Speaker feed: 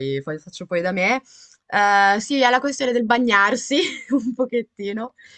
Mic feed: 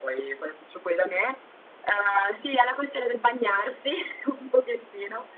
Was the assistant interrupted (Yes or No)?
No